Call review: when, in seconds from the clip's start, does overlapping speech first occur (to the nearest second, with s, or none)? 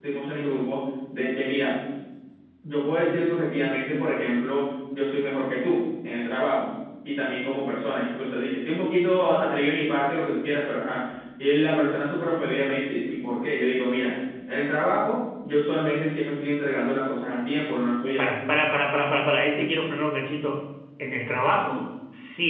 none